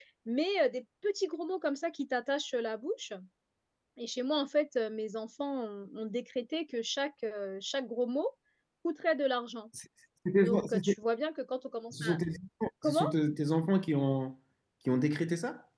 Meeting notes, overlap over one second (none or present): none